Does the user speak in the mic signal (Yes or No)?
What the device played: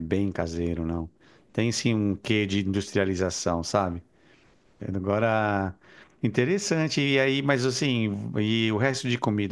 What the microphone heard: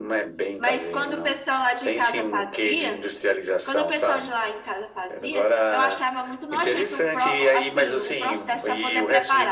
Yes